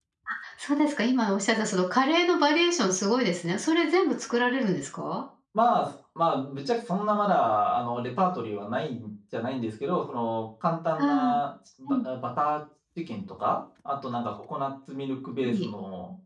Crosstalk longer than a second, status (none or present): none